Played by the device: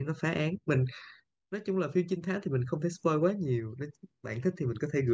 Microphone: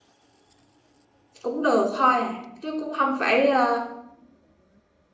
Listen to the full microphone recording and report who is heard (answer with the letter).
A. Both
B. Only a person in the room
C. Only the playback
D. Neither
B